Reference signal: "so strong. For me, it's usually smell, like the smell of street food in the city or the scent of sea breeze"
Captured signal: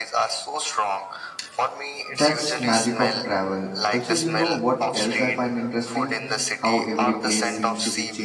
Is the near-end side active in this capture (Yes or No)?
Yes